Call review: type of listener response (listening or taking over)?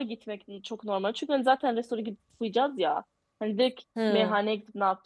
listening